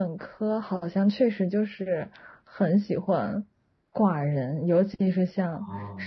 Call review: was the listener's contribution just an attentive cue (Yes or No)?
Yes